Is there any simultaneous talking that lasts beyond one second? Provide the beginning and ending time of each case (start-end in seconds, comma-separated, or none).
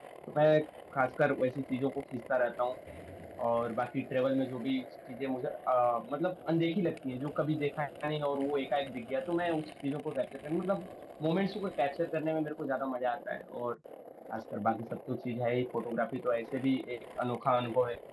none